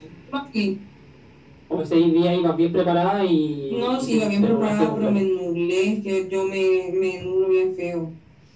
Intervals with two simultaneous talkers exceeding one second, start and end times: 3.7-5.2

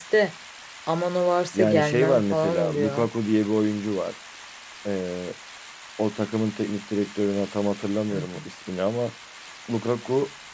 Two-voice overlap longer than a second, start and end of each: 1.5-3.1

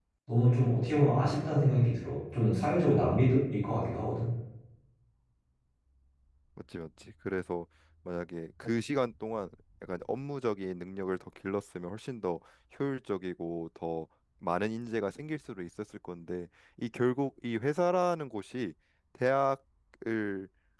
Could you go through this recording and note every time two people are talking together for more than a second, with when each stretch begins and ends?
none

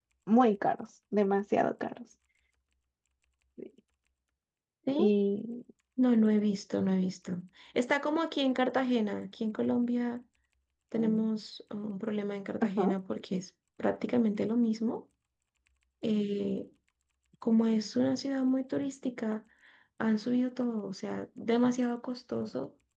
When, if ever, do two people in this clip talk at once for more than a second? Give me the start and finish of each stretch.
none

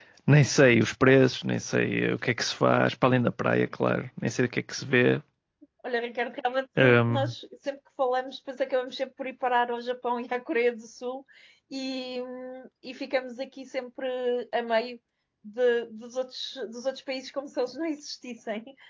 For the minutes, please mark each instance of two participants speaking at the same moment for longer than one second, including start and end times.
none

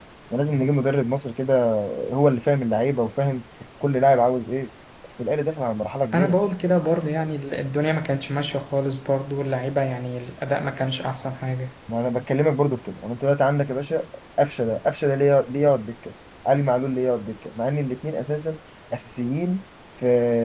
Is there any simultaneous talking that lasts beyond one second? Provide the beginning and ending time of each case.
none

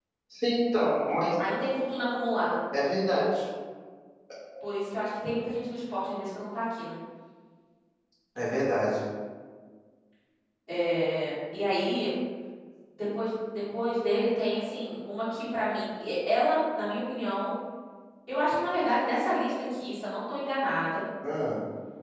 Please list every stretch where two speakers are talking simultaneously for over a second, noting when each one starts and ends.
none

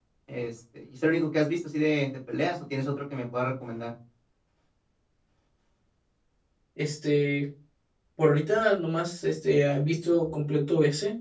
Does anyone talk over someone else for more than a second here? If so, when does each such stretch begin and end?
none

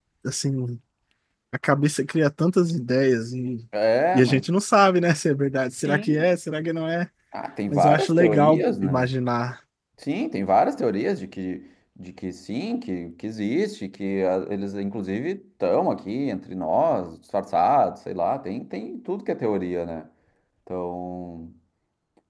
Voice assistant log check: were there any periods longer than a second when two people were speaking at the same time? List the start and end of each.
7.7-9.1

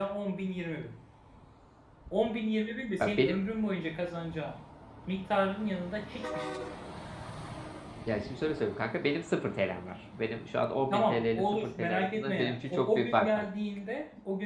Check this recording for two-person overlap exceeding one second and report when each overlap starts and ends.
10.9-13.5

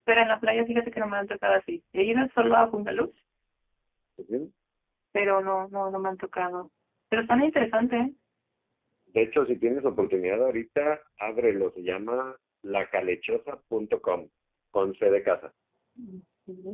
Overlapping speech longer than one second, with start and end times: none

